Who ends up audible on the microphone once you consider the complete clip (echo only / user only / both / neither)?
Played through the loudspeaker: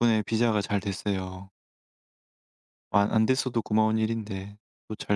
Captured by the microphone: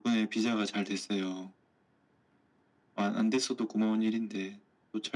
echo only